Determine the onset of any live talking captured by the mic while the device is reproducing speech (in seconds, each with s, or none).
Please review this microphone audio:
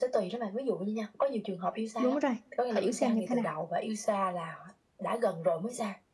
2.0 s